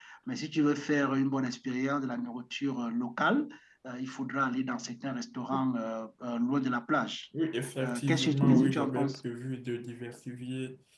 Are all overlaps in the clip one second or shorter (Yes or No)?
No